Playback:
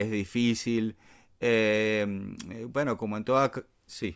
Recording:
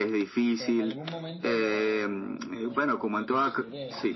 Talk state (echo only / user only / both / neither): both